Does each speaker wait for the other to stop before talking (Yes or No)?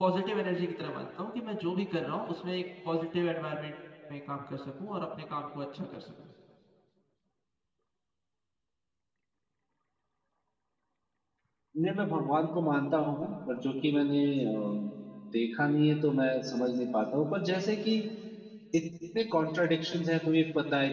Yes